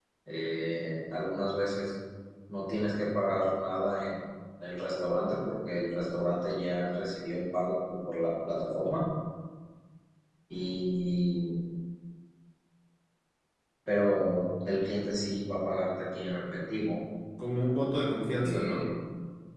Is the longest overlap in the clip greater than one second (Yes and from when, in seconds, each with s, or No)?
No